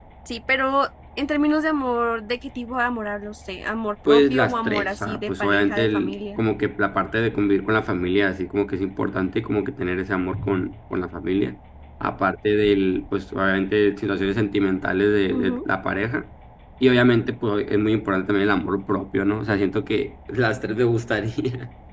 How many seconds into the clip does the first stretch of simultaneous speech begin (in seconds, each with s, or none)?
4.1 s